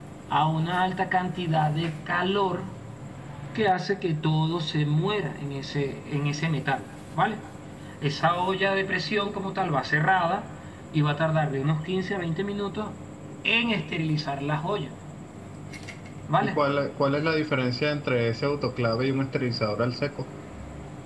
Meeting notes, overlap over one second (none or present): none